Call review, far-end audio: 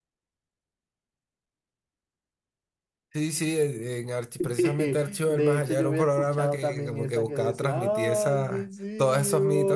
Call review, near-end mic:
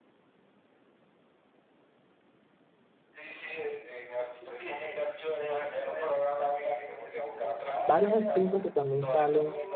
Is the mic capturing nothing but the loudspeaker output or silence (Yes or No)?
No